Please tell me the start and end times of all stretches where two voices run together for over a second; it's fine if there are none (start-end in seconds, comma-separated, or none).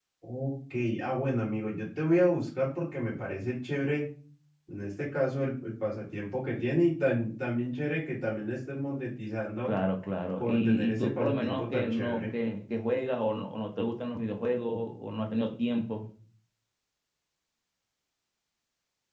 10.4-12.4